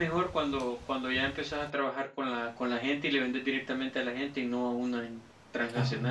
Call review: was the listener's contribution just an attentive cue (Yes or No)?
No